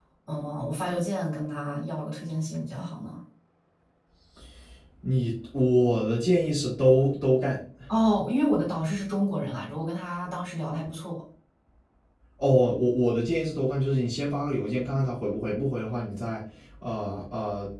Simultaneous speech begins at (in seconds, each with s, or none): none